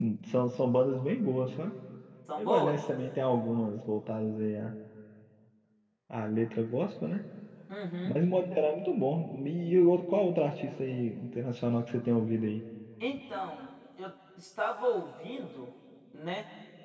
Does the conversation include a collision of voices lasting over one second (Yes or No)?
No